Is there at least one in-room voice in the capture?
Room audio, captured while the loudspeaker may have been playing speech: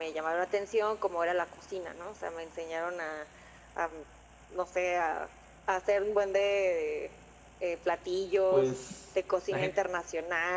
Yes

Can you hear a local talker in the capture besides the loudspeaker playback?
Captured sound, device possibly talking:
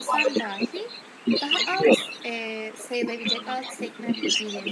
Yes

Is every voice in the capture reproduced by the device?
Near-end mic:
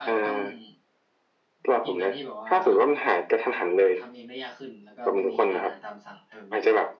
No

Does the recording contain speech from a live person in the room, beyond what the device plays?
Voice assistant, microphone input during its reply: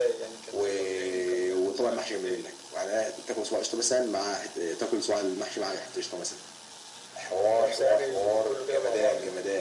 No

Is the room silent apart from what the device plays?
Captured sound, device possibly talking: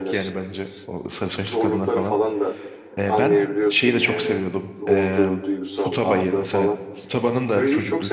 No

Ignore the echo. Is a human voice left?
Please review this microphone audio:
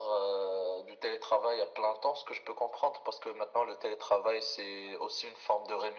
No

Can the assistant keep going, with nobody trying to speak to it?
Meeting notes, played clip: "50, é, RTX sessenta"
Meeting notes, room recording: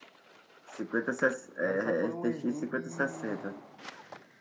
No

